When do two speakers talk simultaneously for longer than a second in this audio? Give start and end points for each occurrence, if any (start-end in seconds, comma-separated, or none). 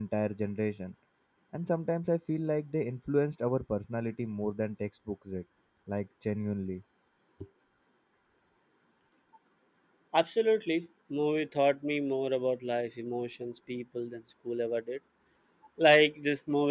none